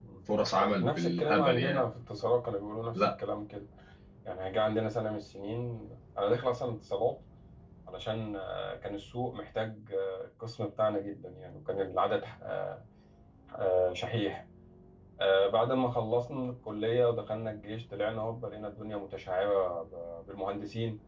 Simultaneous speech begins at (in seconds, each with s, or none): 0.5 s